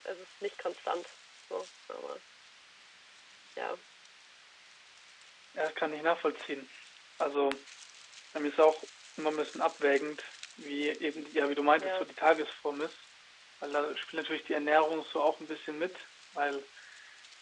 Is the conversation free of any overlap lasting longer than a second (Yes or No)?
Yes